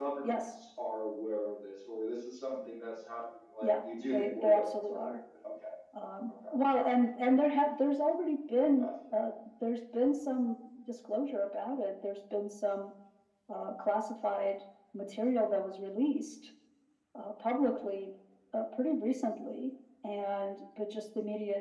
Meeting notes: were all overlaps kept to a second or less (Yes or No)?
No